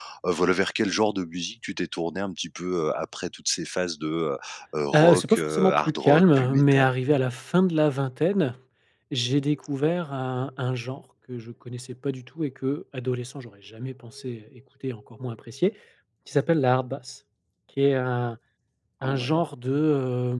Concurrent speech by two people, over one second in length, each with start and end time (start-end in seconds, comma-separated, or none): 4.9-6.9